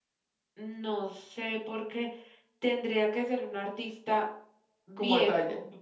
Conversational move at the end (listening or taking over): taking over